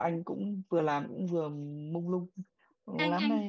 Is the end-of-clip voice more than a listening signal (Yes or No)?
Yes